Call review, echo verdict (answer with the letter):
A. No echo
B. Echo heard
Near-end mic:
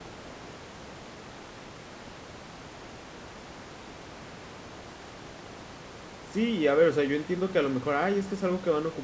A